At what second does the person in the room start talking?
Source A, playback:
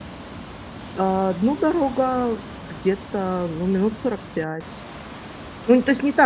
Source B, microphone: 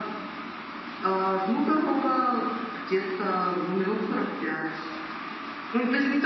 none

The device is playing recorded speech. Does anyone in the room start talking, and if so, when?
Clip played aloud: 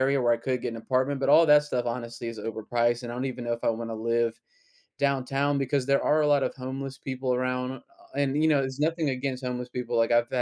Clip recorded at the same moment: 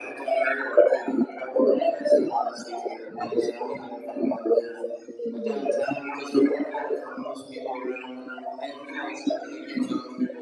5.3 s

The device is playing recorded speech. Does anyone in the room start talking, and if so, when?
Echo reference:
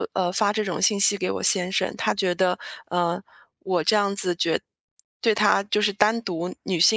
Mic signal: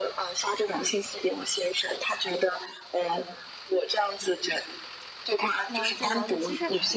5.7 s

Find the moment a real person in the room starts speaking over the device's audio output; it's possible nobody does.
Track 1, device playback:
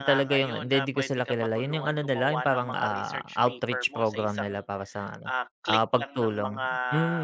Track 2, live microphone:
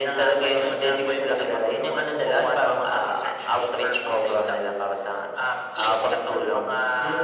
none

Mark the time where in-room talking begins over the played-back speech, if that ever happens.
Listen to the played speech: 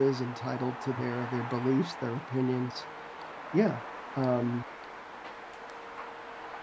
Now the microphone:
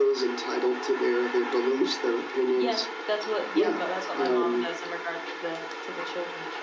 2.6 s

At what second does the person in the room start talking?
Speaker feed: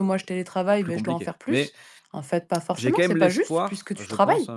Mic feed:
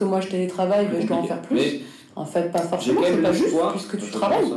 none

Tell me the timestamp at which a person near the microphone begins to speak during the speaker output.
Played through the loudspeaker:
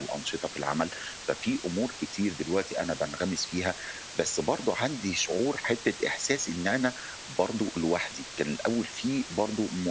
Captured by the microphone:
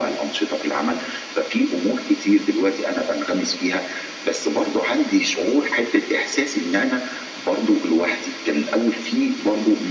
none

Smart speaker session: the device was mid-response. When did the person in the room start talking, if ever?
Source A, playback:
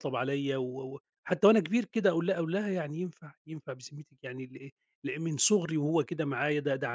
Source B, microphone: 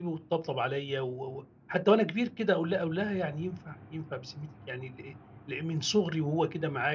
none

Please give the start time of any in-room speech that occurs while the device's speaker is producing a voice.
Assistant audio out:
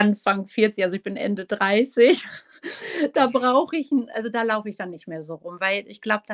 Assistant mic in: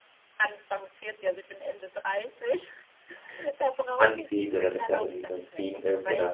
4.0 s

